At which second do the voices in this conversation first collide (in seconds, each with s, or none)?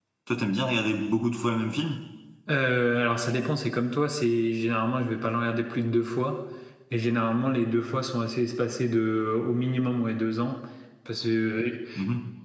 none